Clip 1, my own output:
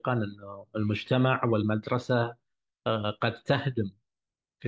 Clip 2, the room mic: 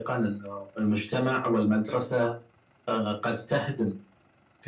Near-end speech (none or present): none